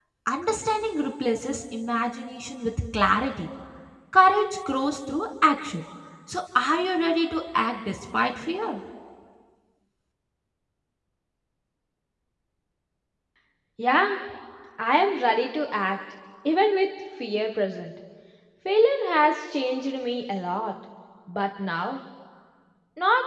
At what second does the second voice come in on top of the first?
none

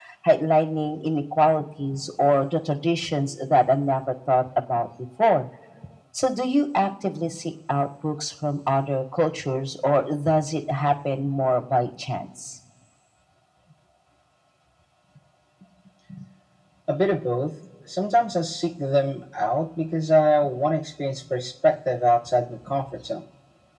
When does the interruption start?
none

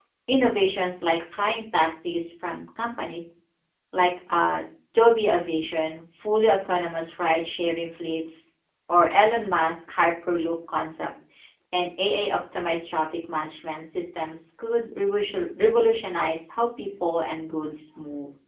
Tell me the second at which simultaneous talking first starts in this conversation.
none

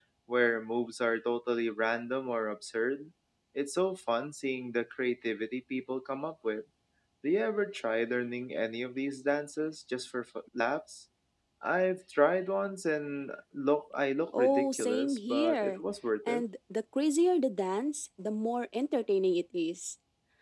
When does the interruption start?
14 s

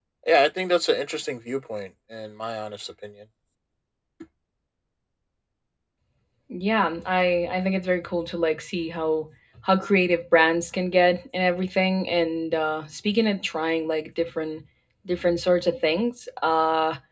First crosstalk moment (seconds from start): none

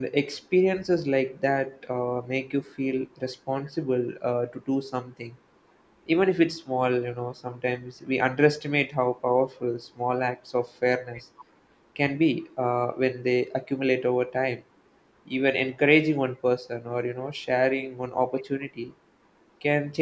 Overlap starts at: none

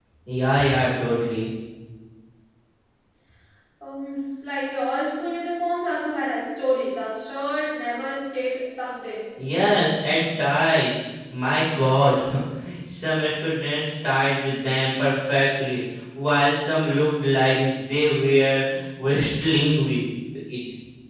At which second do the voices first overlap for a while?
none

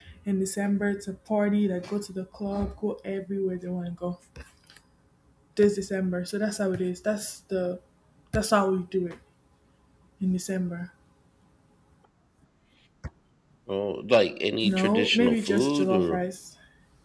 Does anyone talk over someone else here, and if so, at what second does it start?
15 s

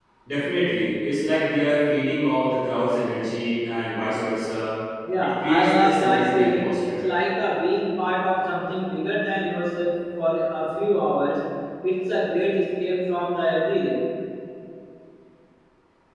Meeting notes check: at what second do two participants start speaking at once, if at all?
5 s

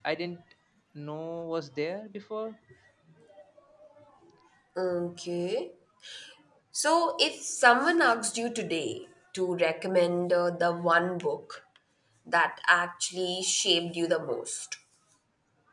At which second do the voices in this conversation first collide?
none

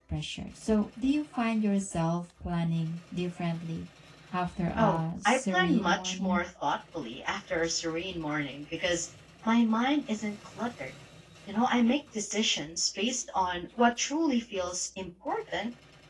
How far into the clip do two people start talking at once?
5 s

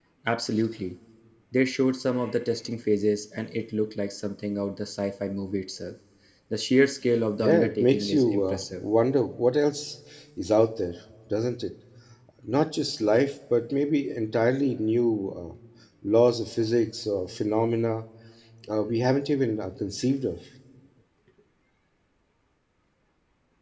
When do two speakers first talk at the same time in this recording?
7 s

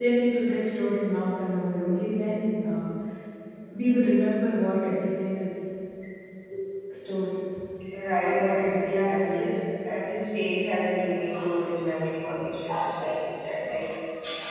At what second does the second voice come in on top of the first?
8 s

